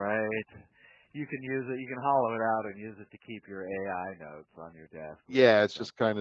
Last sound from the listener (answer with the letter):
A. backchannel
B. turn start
B